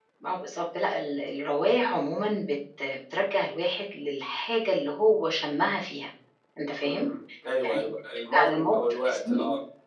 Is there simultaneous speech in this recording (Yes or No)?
Yes